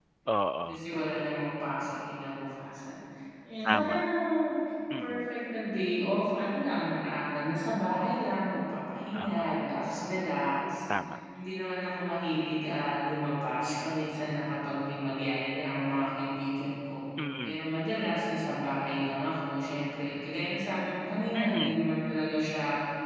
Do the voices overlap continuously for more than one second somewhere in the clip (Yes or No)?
No